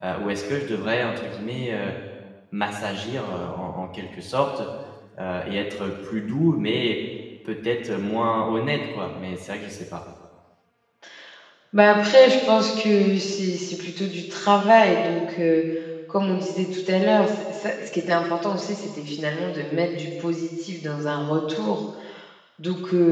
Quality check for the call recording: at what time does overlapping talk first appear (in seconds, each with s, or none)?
none